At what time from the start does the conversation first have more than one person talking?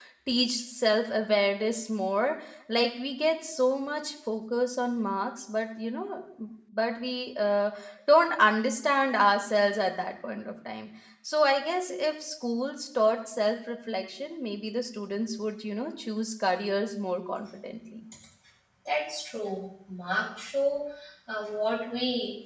none

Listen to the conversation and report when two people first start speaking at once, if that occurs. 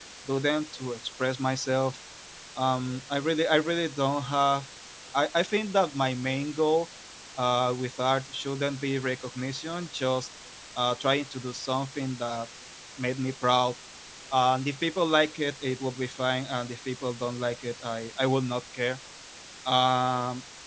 none

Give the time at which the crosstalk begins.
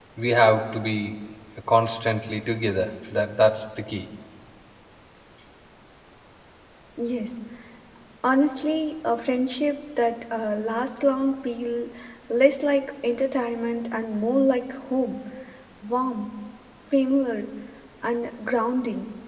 none

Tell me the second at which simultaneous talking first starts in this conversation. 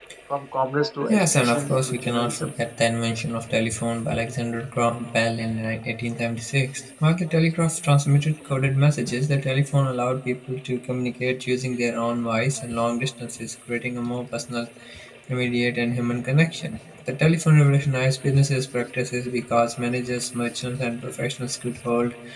1.1 s

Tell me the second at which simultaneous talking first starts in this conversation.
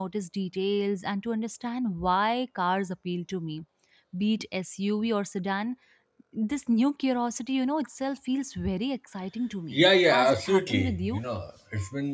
9.7 s

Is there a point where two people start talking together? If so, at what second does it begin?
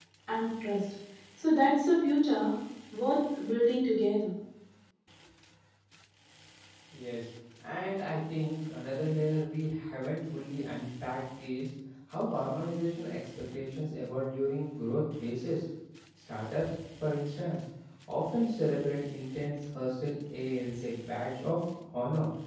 none

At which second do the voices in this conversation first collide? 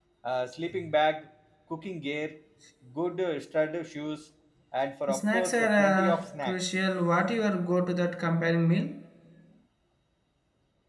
5.1 s

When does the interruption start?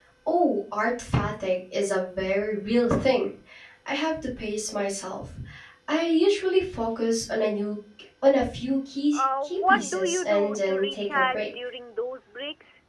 9.1 s

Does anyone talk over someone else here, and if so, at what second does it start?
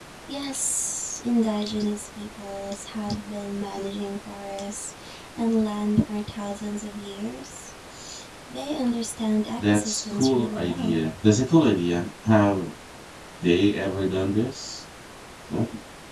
9.6 s

